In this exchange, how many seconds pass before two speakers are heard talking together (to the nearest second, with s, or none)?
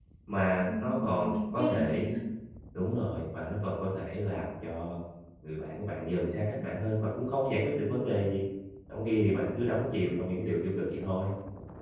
1 s